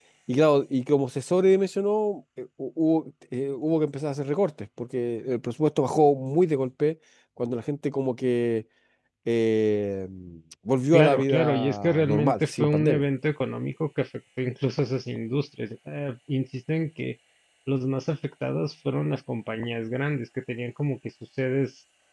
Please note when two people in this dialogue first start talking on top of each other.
11 s

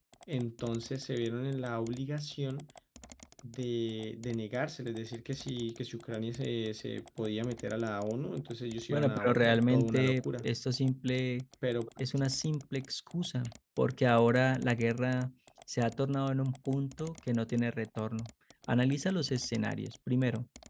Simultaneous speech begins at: 9 s

